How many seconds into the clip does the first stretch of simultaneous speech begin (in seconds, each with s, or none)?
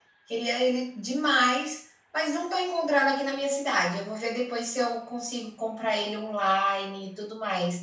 none